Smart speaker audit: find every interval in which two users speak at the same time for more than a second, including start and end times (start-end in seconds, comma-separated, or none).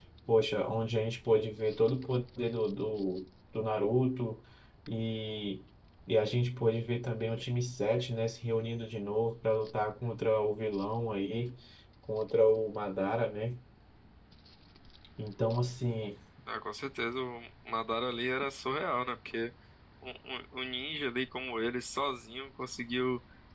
none